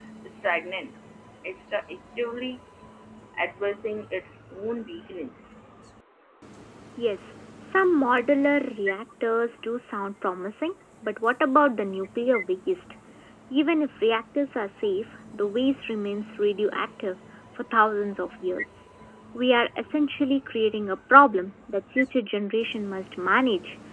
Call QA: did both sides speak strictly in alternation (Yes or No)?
Yes